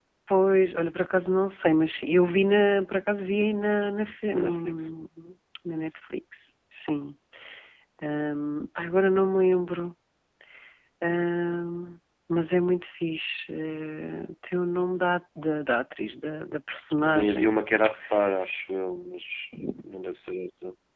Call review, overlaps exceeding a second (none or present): none